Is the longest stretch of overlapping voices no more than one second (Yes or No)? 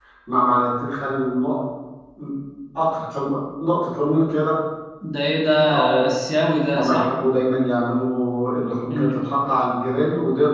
Yes